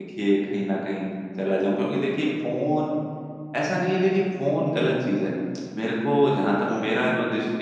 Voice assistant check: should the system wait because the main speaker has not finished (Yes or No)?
Yes